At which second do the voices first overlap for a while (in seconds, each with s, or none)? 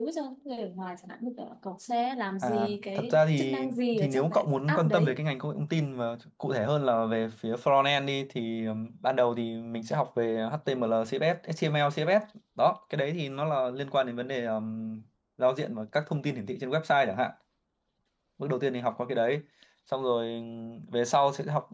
2.4 s